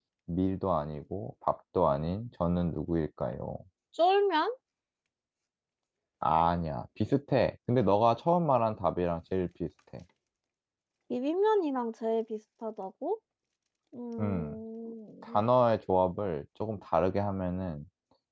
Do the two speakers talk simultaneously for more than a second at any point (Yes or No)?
No